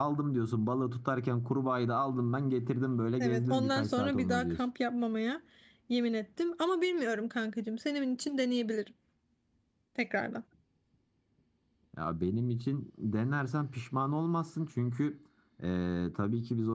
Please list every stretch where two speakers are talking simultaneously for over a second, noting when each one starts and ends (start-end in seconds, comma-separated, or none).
3.2-4.6